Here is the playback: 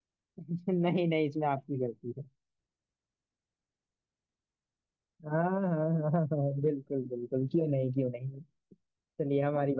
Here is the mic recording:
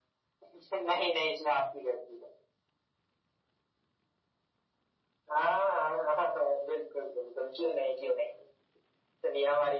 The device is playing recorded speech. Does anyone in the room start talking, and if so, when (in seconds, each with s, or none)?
none